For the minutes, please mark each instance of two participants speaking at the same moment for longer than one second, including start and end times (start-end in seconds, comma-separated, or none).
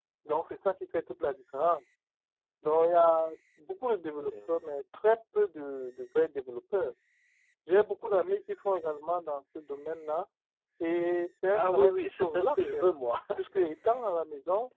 11.5-12.9